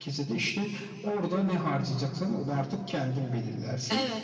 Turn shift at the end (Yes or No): No